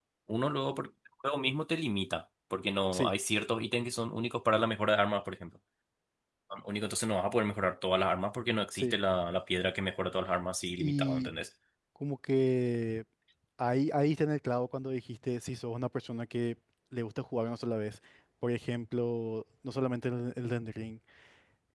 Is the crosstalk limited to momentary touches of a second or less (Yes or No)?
Yes